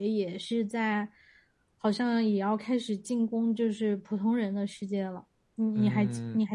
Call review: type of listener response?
taking over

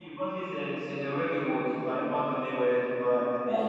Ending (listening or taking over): listening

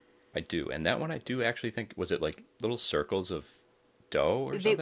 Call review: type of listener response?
taking over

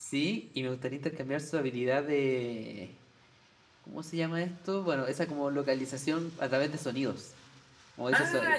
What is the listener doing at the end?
listening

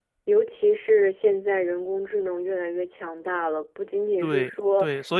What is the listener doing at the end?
taking over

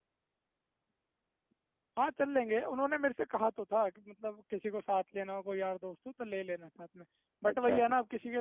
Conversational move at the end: listening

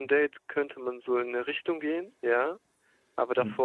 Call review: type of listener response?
listening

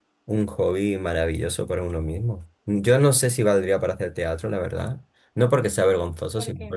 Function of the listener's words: listening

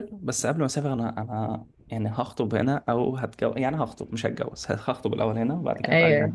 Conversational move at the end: listening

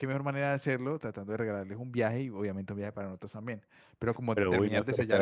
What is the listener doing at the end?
taking over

